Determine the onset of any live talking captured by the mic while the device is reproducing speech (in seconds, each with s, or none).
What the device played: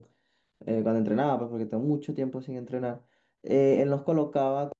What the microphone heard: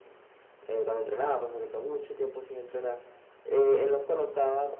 none